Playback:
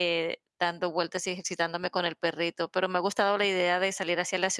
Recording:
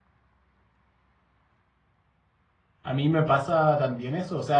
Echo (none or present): none